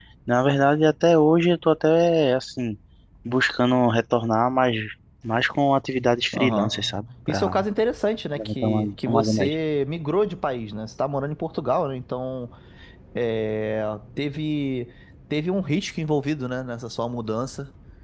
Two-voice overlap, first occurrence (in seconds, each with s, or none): 6.3 s